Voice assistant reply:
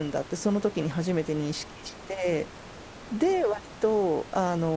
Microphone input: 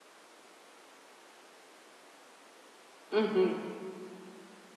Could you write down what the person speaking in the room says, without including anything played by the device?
うん、

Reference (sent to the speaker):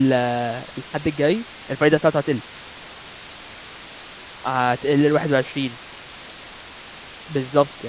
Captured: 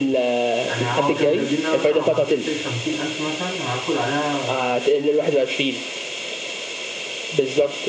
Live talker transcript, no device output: يعني هو كانوا كاتبين ان انا مثلا لو حطيت سي 50000 مثلا هاخد عليها

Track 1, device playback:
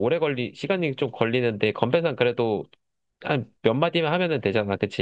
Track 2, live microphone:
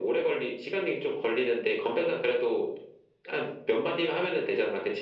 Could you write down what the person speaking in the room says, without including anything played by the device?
none

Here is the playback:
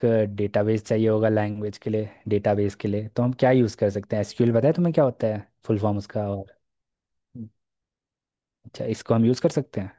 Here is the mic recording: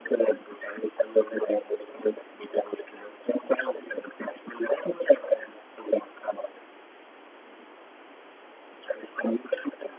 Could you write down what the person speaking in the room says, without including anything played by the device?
none

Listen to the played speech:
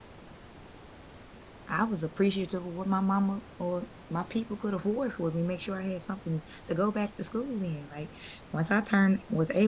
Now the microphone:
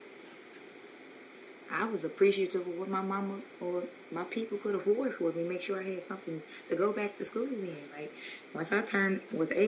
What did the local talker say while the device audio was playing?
none

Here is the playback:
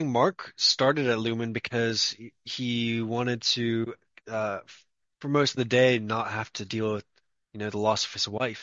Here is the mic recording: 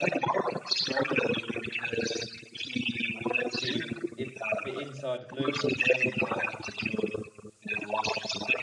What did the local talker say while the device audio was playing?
the in it, the inside of Lumen on the severed floor

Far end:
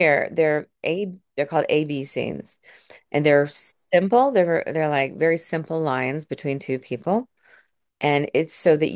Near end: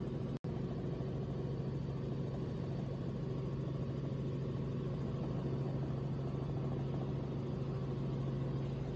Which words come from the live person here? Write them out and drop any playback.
none

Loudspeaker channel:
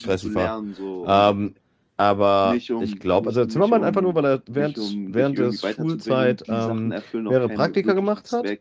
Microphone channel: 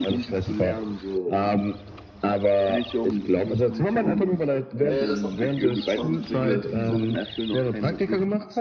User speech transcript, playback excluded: ja, das machen, das machen viele.

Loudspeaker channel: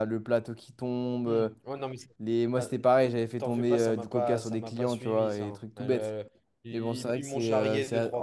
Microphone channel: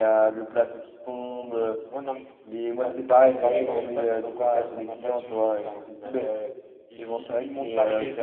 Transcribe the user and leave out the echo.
Paris, ouais.

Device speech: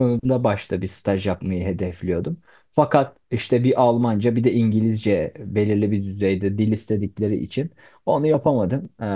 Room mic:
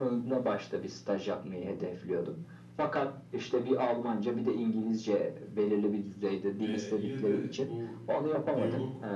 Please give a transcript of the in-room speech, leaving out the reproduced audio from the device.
e, yine de bu e, diyalog

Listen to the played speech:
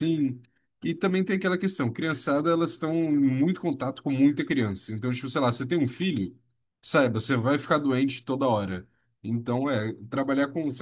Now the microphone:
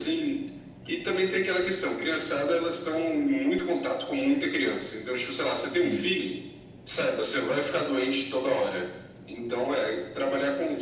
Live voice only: Sim,

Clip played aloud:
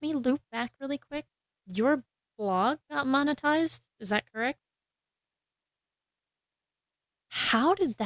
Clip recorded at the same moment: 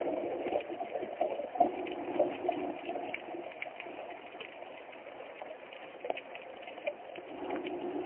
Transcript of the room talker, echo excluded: none

